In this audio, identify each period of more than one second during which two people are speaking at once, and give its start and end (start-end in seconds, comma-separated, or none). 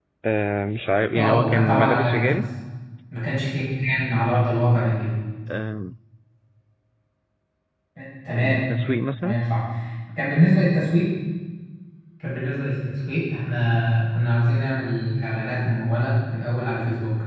1.2-2.4